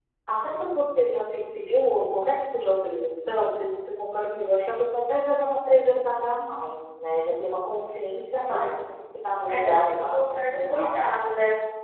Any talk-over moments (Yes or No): Yes